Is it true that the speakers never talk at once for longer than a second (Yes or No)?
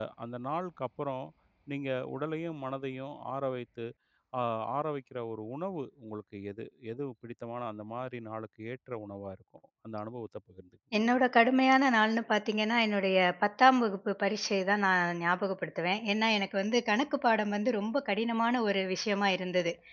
Yes